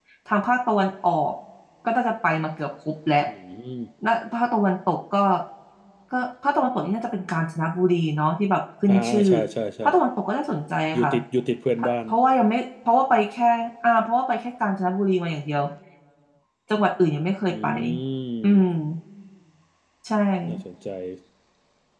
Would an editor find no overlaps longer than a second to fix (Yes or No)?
Yes